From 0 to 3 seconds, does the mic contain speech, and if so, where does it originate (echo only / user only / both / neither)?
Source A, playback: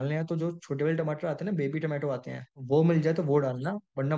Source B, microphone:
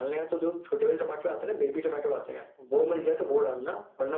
echo only